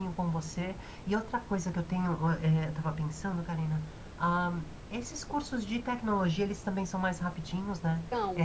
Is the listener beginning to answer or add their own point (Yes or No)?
Yes